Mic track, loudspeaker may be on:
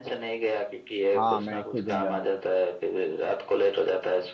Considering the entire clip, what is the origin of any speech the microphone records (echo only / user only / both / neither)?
both